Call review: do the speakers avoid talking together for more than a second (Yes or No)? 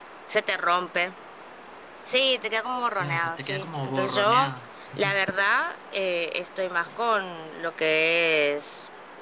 No